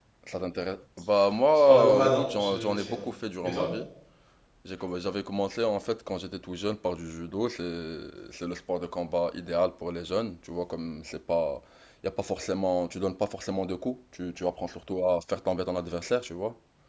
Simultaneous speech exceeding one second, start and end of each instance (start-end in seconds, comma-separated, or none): 1.6-3.0